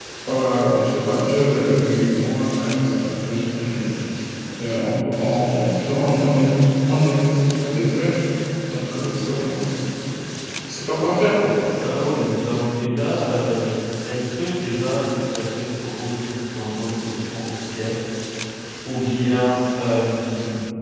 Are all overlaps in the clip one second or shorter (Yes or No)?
Yes